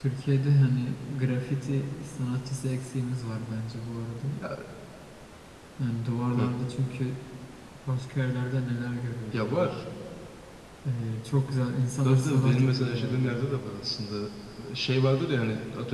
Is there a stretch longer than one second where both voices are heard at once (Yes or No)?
Yes